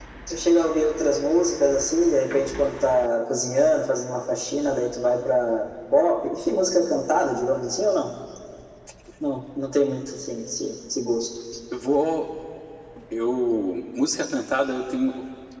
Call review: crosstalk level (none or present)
none